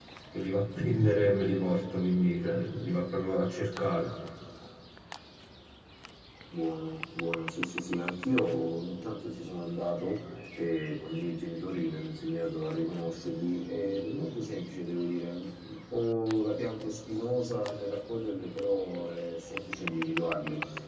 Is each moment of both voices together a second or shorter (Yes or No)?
Yes